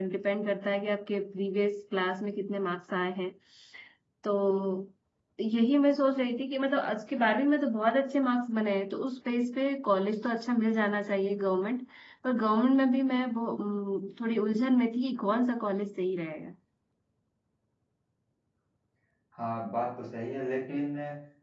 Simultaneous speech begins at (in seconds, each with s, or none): none